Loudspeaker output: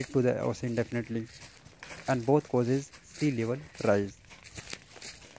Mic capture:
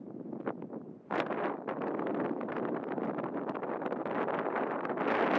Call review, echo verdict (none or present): none